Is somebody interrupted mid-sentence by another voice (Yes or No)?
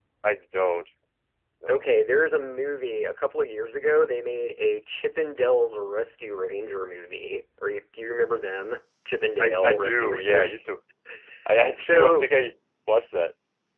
Yes